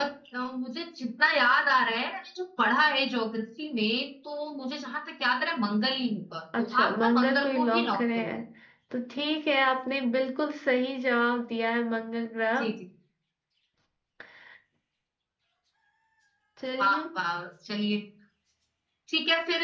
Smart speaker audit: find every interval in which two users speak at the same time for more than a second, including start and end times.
6.6-8.3

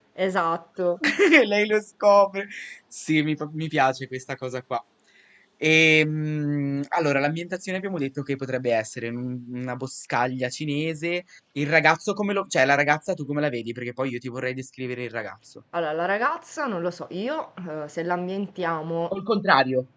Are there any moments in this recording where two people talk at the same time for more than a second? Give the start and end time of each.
none

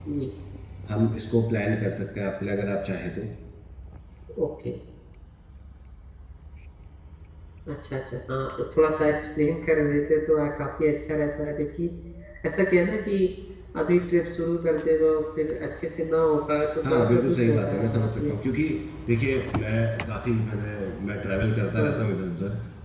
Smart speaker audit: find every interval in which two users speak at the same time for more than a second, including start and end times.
16.8-18.4

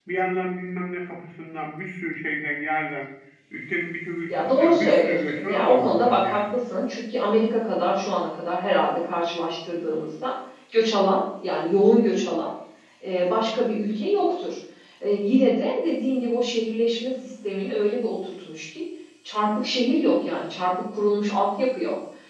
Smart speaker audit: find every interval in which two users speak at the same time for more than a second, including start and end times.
4.3-6.5

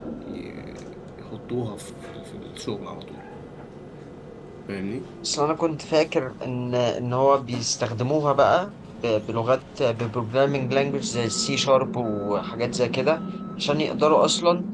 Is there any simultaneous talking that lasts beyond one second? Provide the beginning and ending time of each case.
none

